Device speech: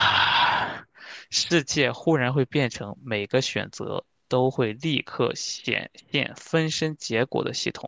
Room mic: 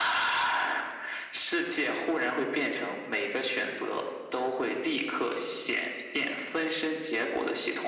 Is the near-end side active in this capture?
No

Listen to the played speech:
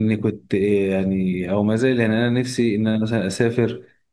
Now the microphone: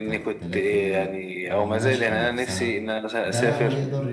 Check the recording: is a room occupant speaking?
Yes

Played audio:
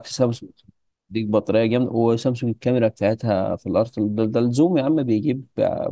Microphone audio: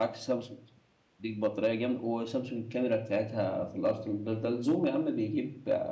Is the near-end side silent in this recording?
Yes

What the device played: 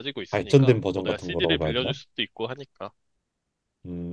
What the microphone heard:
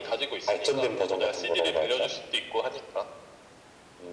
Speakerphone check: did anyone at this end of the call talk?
No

